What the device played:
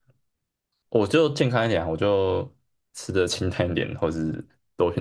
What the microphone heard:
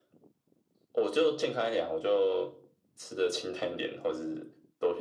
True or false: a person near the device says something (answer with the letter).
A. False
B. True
A